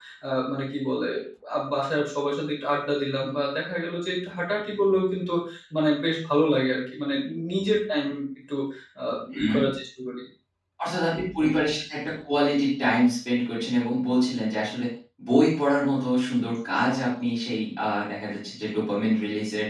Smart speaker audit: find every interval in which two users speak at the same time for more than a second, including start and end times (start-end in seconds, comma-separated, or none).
none